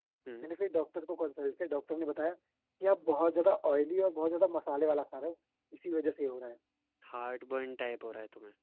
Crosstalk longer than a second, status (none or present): none